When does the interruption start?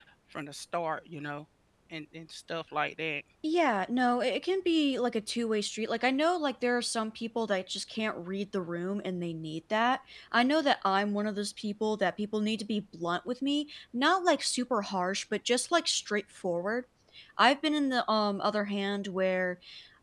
none

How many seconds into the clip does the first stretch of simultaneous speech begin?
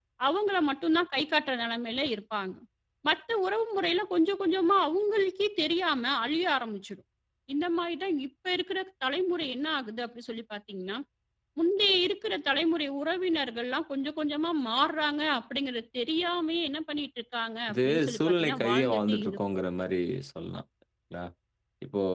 18 s

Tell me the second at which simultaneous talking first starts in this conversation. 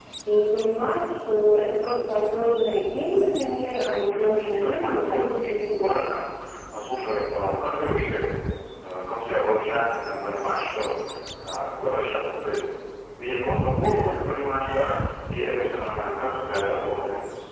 4 s

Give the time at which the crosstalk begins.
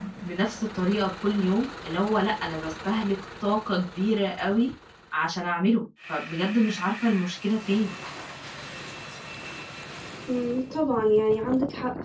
none

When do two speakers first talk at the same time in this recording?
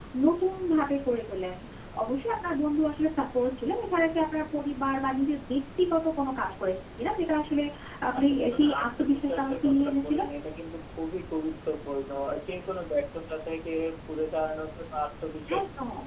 8 s

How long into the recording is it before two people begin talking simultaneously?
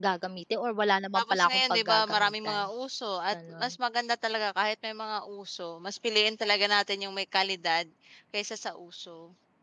1 s

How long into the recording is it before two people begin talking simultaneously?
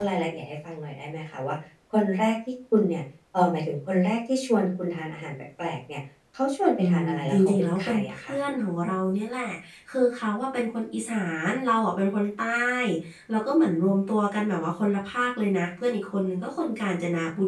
7 s

